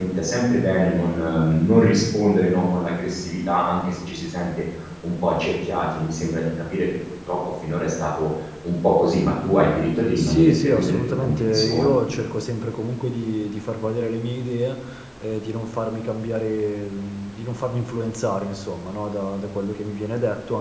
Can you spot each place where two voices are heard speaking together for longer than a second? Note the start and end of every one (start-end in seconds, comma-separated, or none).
10.2-12.0